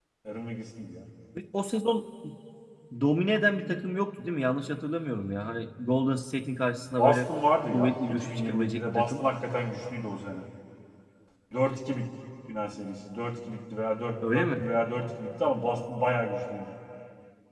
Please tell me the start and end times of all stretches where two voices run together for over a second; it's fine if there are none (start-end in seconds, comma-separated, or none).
7.7-9.2